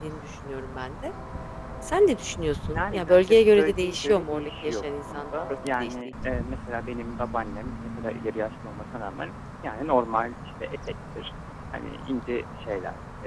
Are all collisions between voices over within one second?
No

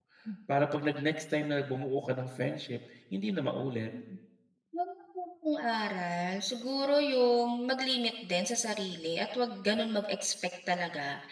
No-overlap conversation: Yes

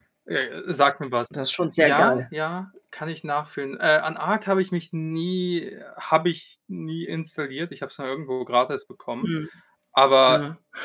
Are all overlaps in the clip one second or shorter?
Yes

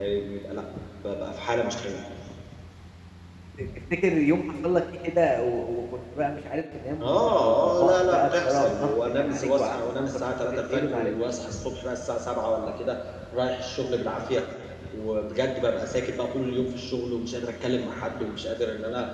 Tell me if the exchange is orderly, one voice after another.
No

